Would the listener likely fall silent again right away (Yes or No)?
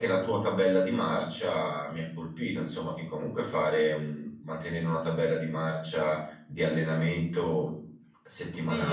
No